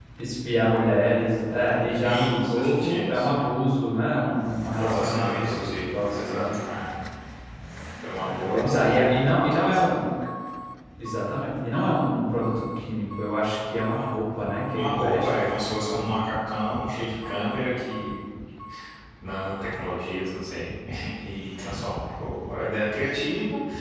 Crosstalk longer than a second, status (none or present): present